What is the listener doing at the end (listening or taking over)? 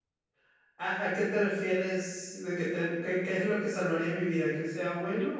taking over